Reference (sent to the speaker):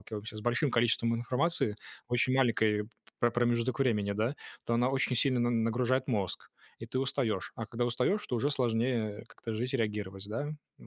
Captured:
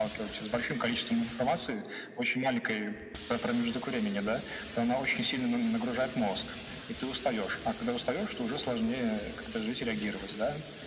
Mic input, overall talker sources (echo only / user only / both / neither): echo only